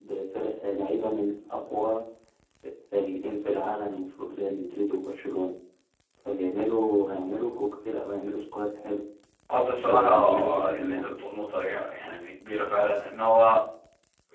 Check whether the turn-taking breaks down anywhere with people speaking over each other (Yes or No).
Yes